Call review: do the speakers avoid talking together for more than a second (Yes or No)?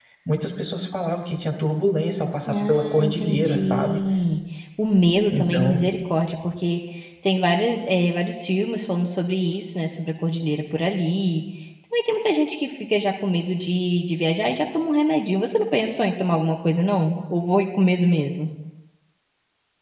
No